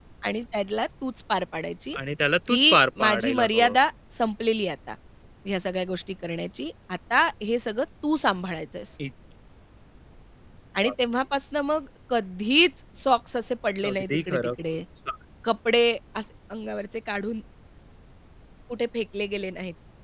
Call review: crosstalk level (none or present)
present